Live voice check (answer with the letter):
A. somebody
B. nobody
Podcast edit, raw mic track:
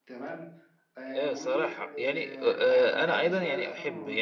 A